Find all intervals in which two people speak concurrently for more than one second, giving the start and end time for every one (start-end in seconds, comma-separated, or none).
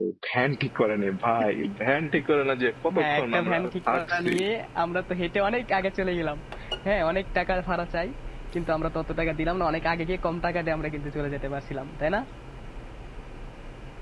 3.0-4.3